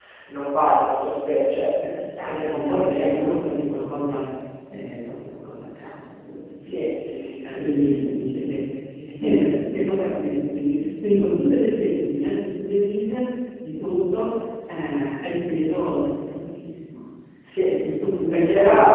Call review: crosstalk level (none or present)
present